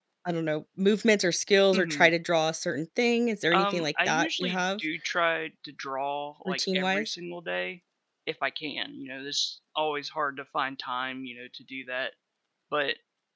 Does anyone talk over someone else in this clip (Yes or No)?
Yes